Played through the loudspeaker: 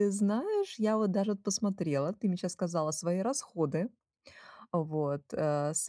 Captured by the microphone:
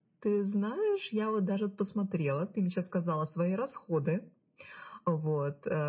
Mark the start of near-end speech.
none

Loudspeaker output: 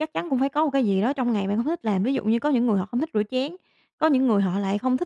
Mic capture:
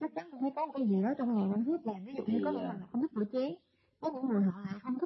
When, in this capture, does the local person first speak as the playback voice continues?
2.2 s

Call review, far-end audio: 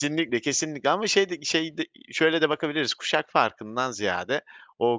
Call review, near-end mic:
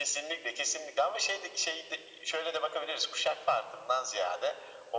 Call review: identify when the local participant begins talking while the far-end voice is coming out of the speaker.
none

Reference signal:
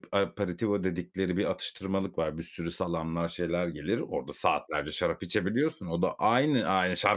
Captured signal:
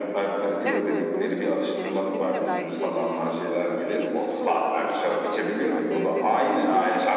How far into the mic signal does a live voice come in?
0.6 s

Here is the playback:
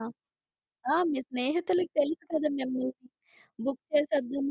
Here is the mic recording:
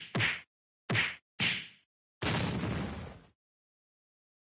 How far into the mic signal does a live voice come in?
none

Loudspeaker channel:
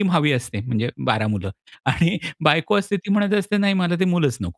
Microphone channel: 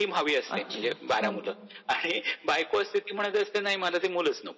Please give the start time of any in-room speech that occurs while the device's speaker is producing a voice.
0.6 s

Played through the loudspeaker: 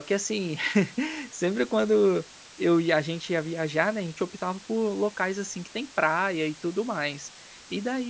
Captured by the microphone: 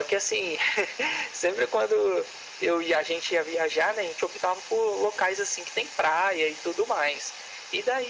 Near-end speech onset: none

